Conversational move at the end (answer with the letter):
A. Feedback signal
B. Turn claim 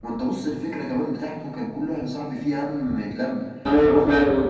B